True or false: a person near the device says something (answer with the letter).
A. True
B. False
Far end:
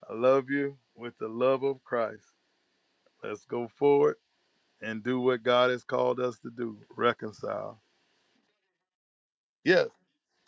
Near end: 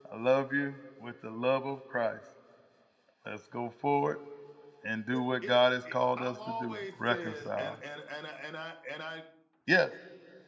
A